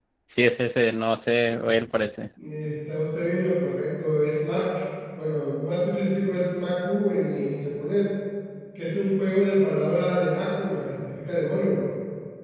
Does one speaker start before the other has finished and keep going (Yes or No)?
No